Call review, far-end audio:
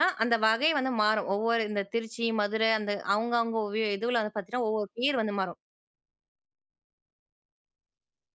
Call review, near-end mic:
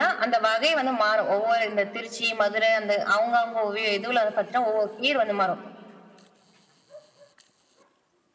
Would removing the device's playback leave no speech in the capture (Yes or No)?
Yes